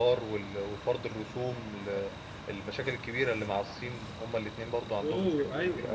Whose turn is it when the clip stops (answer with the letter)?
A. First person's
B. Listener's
B